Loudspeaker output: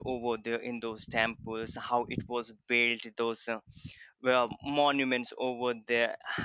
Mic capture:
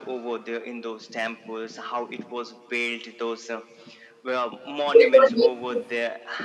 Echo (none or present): present